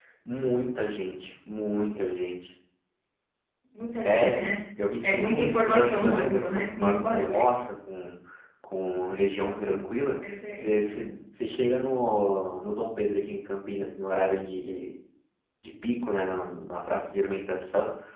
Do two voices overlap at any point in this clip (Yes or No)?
Yes